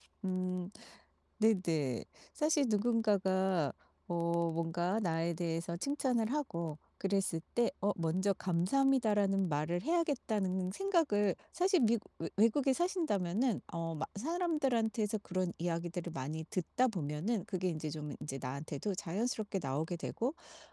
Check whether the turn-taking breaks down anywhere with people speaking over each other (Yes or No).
No